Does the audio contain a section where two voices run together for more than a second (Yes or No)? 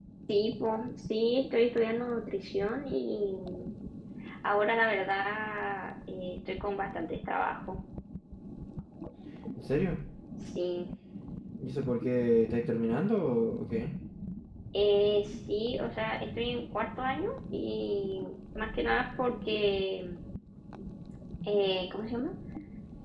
No